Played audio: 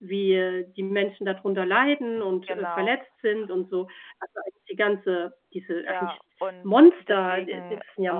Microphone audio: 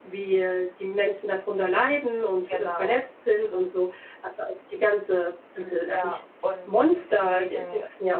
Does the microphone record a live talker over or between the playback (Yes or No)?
Yes